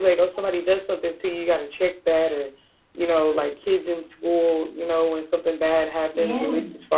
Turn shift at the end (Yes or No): No